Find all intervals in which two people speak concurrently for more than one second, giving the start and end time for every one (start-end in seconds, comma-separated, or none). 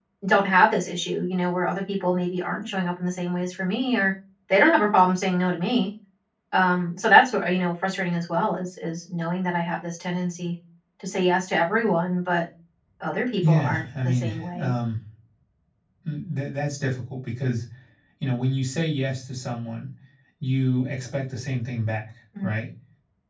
13.4-14.7